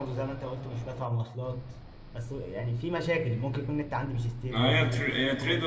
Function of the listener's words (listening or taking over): taking over